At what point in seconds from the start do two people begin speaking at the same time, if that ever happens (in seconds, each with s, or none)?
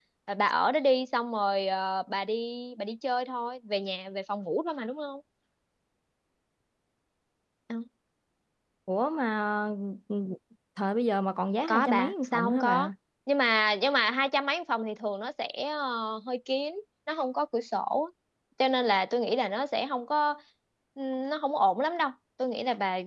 11.7 s